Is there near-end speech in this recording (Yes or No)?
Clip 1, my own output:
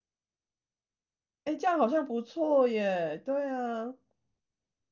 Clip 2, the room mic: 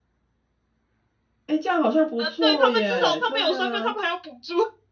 Yes